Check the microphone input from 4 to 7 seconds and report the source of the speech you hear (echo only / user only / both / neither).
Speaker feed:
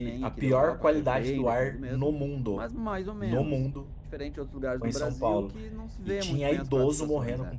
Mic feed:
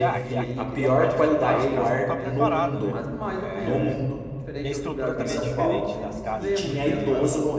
both